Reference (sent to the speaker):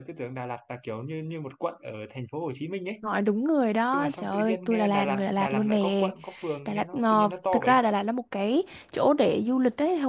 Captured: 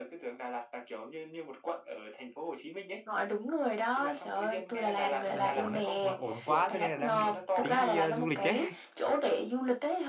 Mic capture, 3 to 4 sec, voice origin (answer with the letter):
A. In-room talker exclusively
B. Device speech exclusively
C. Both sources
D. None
B